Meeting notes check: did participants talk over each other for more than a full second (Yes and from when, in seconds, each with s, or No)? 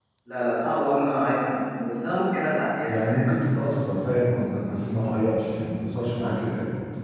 No